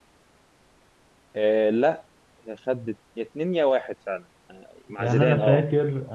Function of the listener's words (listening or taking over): taking over